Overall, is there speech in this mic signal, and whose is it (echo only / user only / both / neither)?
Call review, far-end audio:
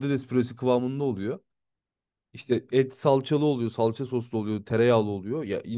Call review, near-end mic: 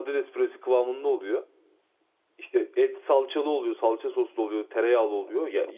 echo only